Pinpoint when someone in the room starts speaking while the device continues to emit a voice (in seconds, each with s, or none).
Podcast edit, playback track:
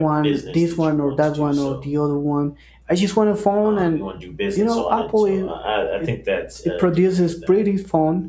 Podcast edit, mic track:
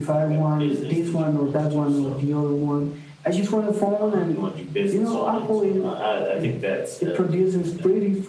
none